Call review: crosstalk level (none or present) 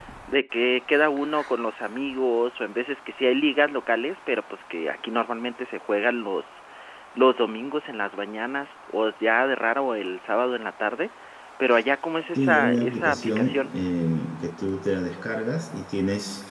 present